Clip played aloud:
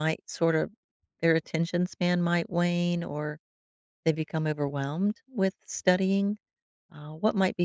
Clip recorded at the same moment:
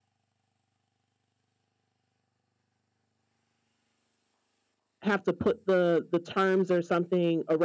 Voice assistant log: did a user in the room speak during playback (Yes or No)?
Yes